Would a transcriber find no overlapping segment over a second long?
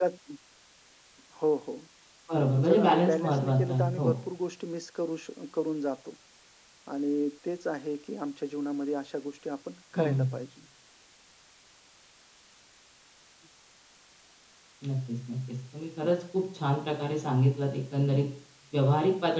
No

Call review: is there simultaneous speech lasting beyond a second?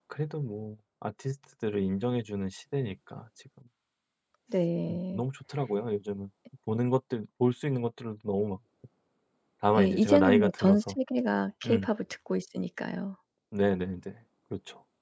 Yes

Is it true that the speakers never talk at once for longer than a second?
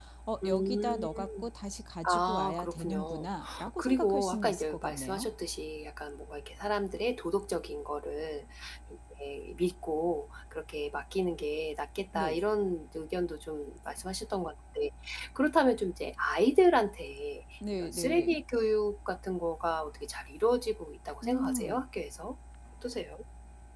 No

